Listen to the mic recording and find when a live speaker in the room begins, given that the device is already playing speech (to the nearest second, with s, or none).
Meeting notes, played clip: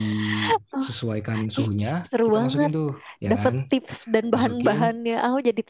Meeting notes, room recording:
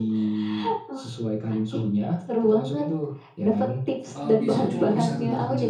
4 s